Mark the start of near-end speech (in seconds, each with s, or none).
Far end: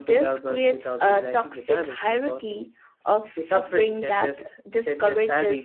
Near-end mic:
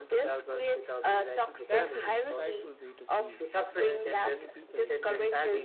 1.6 s